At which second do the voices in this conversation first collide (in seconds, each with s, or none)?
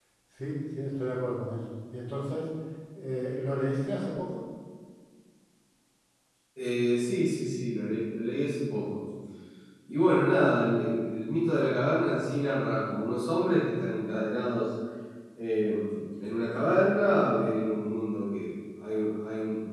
none